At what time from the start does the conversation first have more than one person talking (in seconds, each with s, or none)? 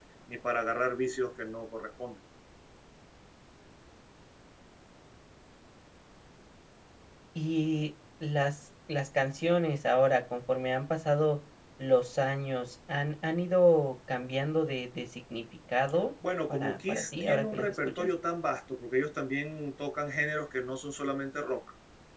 16.5 s